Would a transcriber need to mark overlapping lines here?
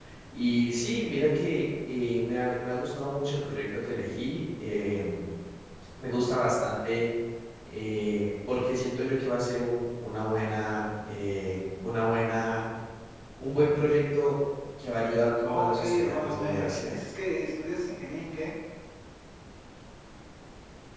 Yes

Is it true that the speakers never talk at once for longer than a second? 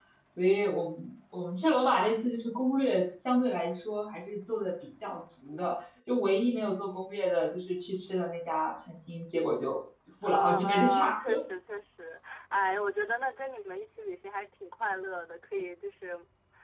No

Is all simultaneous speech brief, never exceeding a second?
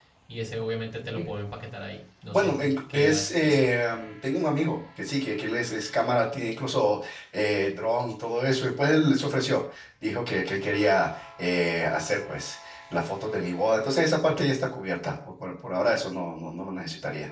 No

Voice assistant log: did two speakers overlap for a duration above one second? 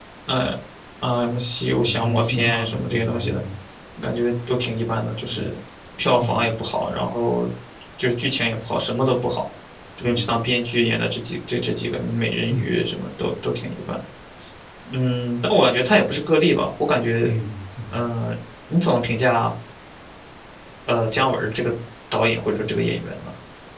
Yes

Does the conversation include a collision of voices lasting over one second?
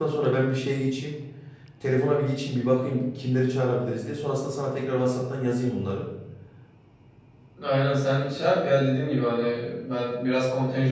No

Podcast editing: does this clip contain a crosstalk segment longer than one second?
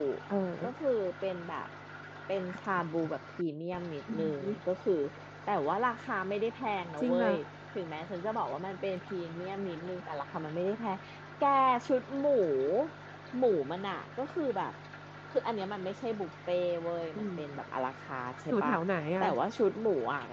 No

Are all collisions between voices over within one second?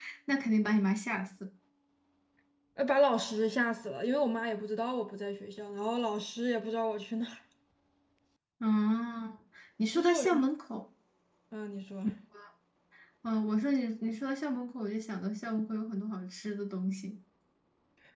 Yes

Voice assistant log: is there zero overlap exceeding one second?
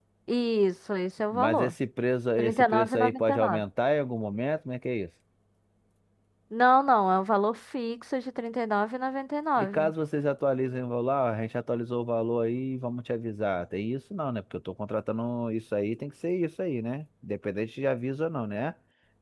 No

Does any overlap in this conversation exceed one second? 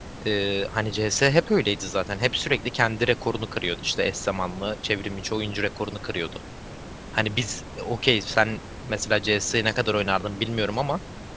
No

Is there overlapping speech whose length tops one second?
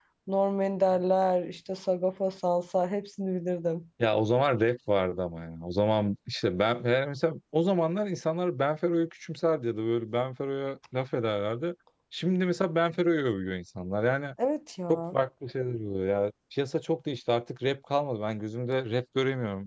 No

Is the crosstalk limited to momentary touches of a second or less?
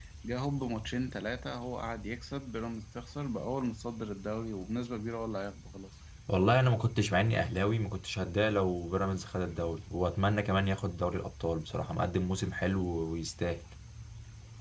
Yes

